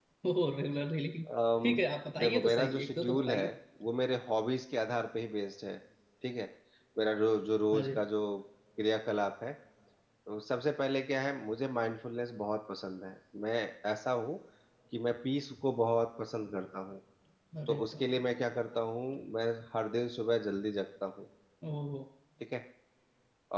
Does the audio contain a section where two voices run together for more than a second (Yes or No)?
Yes